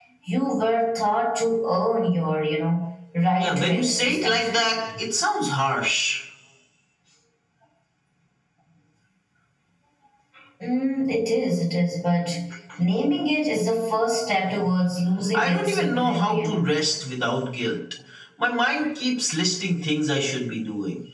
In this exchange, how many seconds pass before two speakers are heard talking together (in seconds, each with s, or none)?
3.4 s